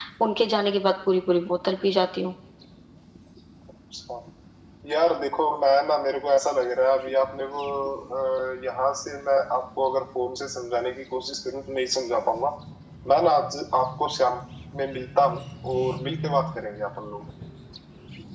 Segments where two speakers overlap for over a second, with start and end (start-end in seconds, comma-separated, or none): none